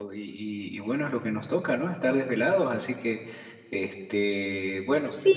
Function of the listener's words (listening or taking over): taking over